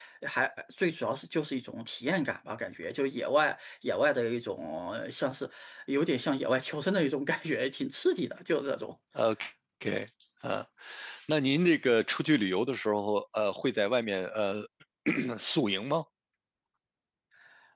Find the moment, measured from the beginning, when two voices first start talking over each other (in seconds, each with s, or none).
none